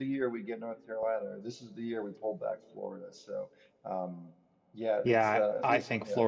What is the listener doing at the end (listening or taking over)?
taking over